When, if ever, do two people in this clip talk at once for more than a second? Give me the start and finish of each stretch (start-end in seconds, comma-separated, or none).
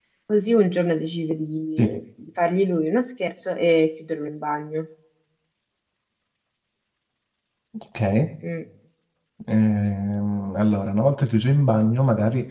none